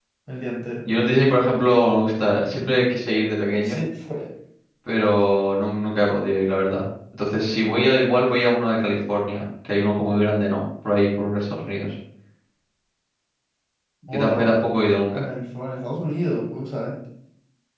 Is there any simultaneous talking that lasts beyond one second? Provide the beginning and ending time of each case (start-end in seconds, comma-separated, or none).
none